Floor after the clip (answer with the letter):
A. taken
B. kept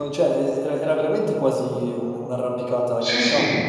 A